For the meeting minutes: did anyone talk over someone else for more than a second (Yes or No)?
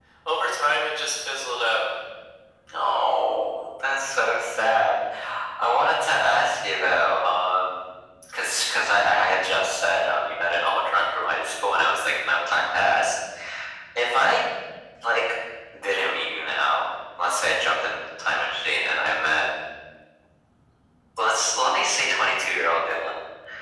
No